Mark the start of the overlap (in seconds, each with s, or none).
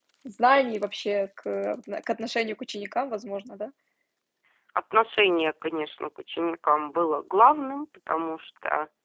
none